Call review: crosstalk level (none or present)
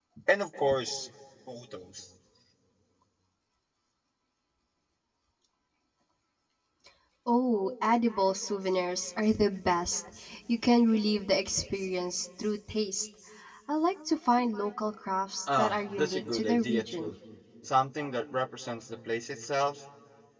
present